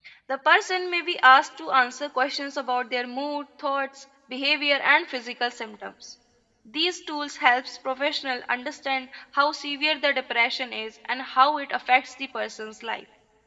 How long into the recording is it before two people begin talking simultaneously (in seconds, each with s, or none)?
none